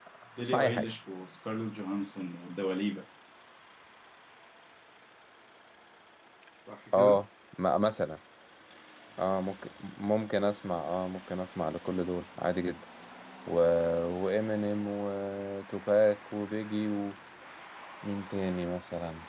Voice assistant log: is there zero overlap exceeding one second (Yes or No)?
Yes